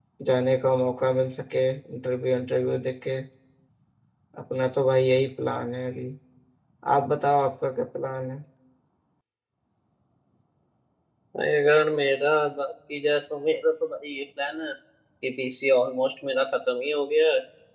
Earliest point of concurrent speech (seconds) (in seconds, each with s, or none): none